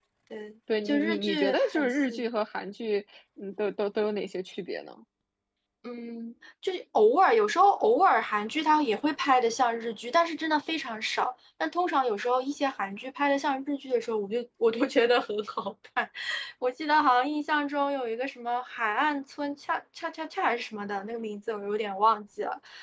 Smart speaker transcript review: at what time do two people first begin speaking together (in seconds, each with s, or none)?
0.8 s